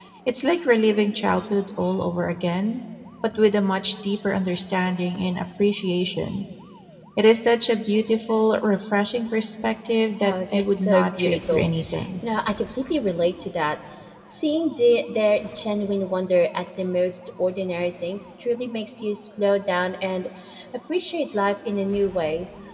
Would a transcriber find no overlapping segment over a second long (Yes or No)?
No